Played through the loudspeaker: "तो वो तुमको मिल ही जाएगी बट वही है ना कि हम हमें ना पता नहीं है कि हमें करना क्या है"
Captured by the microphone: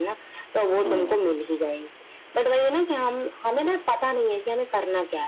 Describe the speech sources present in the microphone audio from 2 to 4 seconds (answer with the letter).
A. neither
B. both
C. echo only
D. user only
C